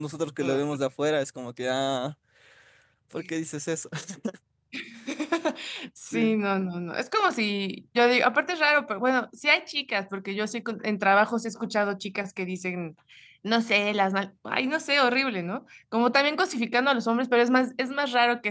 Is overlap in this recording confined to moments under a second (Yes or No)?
Yes